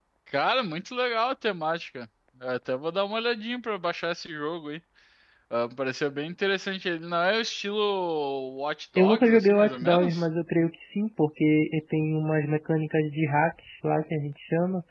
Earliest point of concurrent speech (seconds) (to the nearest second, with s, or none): 9 s